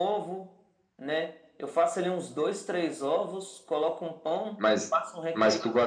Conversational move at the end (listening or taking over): taking over